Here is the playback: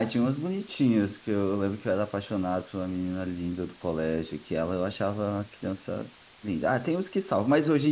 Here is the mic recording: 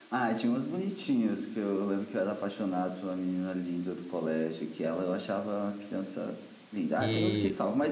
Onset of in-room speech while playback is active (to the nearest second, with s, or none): 7 s